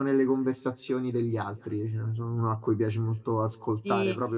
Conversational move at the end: taking over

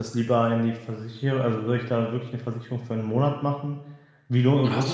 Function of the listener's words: listening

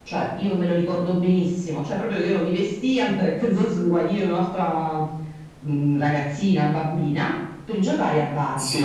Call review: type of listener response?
taking over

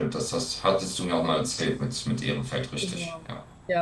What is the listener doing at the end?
taking over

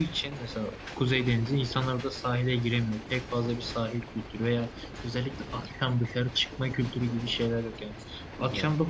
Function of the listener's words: listening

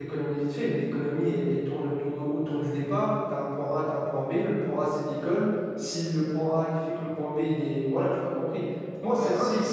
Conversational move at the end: taking over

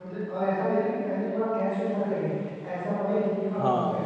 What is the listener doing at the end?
listening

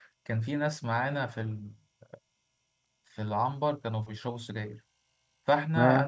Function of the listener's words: listening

